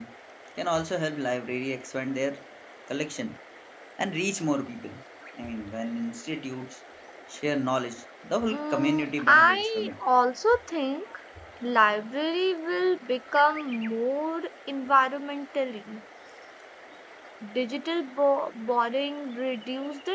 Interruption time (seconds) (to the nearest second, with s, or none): 8 s